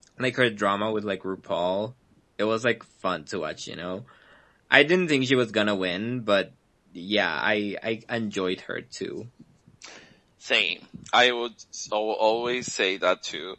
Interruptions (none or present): none